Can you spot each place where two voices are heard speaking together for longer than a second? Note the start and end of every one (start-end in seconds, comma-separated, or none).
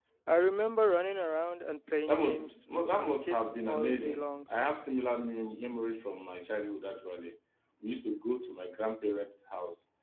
2.1-4.4